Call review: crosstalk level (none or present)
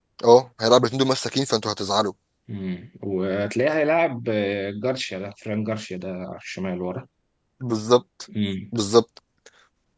none